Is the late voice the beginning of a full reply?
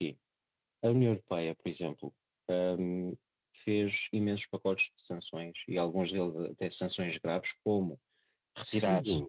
No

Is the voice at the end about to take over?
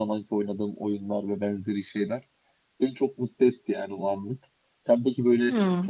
No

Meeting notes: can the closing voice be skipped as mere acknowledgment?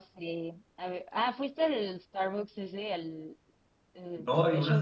No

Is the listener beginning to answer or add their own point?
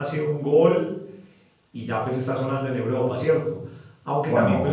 No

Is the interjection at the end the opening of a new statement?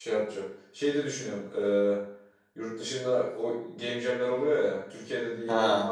No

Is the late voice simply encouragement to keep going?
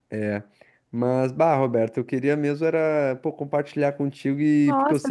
No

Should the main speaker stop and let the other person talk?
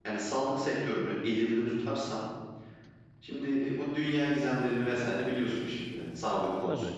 No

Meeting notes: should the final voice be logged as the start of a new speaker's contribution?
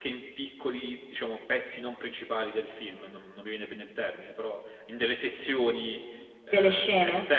No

